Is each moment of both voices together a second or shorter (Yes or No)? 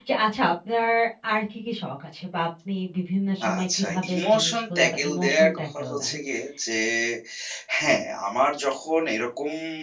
No